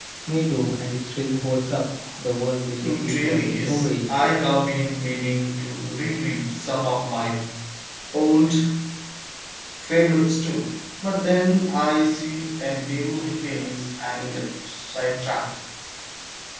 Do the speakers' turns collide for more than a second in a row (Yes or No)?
Yes